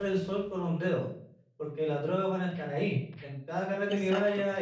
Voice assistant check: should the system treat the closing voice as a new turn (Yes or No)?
No